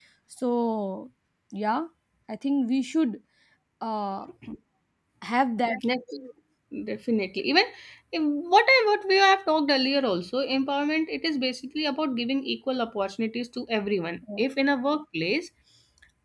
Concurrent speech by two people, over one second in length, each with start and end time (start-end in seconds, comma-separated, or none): none